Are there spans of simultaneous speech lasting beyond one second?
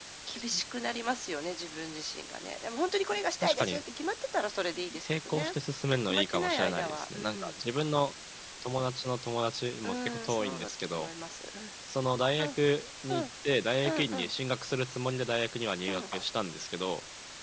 Yes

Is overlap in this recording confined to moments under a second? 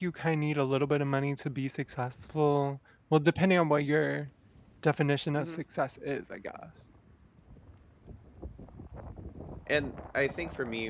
Yes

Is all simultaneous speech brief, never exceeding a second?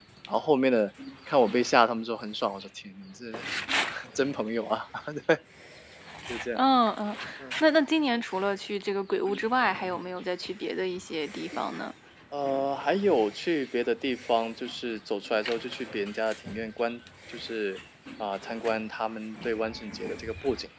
Yes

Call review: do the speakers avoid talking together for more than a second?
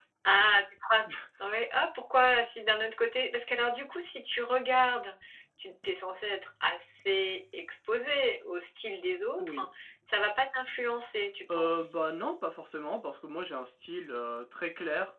Yes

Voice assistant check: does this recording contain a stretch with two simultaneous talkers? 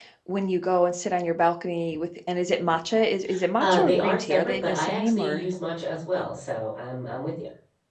Yes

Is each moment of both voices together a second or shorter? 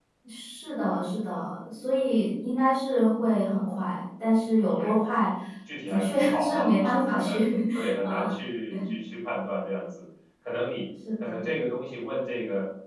No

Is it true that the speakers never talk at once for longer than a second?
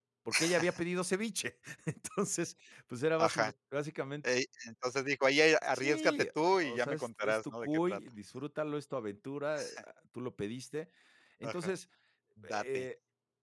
No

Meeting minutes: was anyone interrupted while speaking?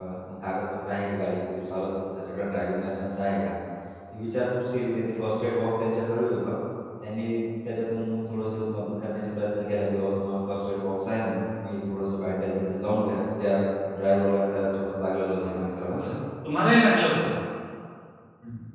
No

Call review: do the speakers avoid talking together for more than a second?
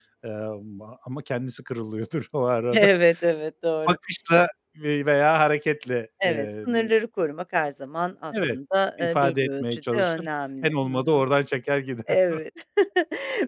No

